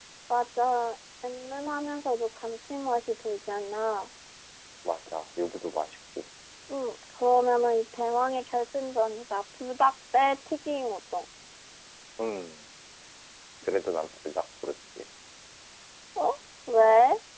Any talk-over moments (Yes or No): No